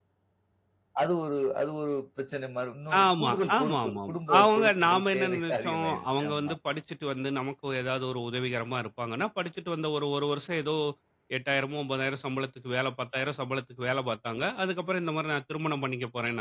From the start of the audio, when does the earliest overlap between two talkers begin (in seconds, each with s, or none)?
2.9 s